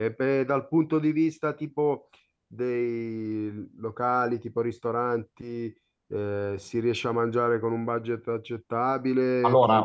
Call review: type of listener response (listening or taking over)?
taking over